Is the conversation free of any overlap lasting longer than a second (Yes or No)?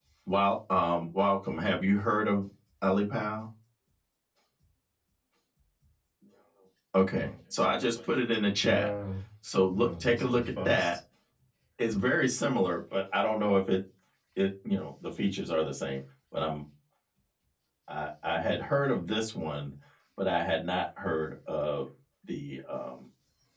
No